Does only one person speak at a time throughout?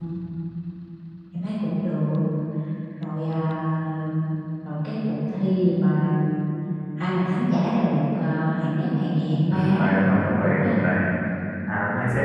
No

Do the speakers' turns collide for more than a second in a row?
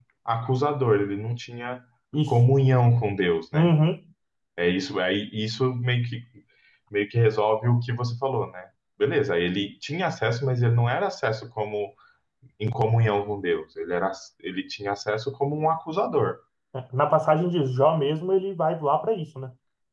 No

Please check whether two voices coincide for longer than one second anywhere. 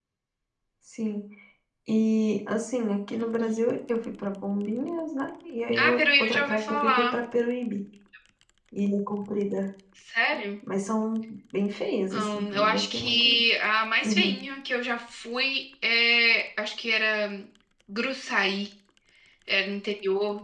Yes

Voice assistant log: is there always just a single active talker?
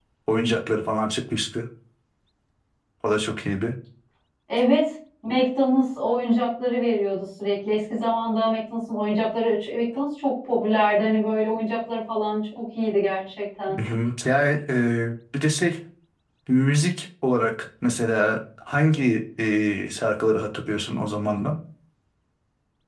Yes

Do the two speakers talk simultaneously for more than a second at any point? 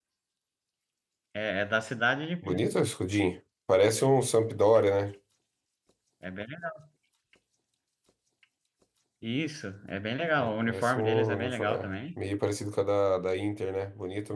Yes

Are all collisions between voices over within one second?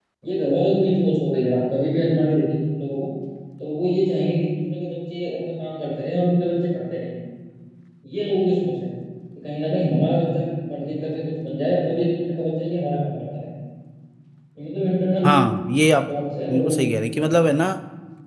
Yes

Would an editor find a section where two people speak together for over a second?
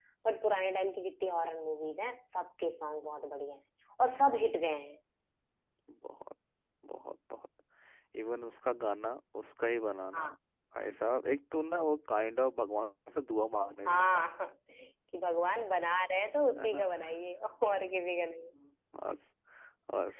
No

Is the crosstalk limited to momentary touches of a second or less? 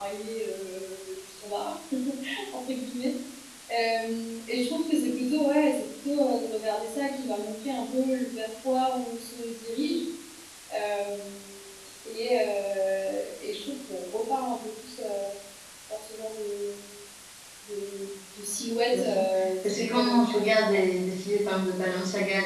No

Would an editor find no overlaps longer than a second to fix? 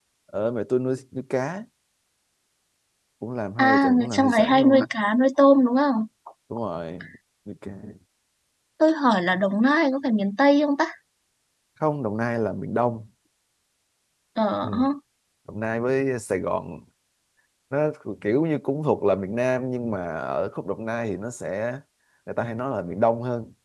No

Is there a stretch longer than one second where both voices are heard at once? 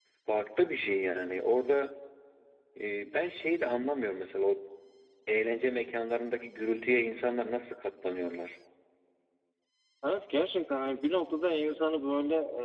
No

